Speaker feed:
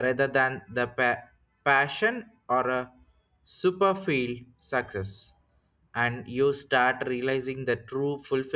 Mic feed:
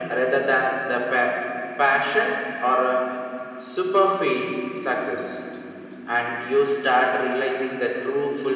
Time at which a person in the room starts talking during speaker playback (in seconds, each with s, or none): none